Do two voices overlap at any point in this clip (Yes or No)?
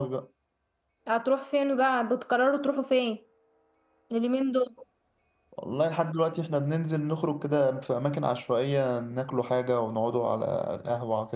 No